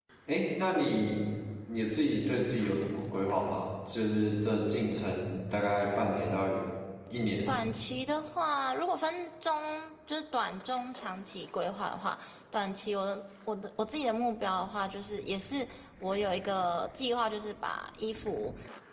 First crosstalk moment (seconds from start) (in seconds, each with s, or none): none